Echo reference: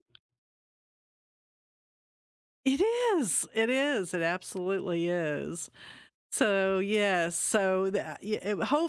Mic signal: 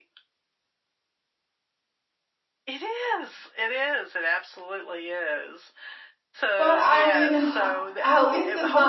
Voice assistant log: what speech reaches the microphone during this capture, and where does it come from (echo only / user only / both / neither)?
both